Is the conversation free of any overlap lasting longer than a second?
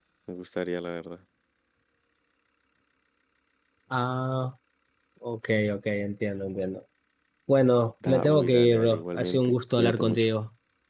No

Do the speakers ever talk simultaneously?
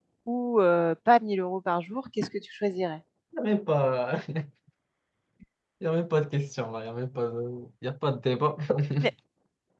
No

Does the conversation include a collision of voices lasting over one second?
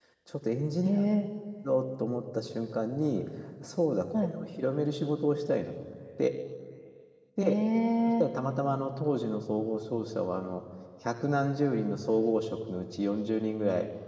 No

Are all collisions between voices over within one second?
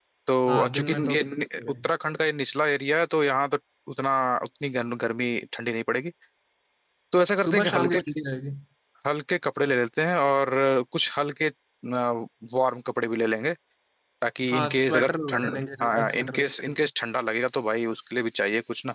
No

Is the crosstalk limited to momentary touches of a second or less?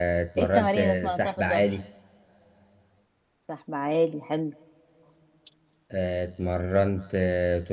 No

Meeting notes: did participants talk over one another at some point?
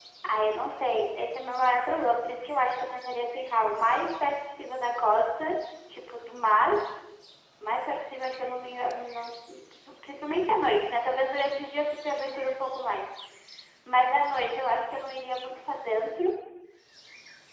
No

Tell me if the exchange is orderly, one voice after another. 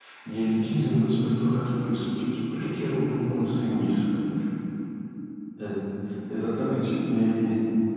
Yes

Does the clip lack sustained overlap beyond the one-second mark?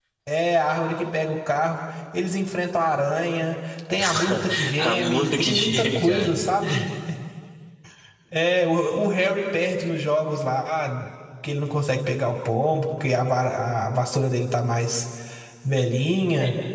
No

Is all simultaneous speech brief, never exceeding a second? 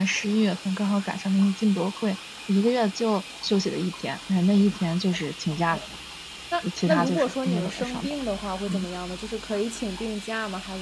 No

